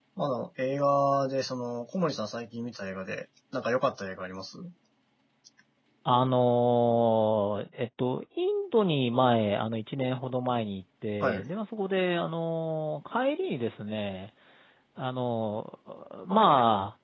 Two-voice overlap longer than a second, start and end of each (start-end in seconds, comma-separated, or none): none